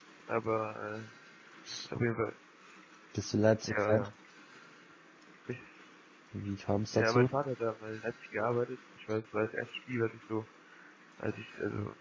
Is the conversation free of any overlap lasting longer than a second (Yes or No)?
Yes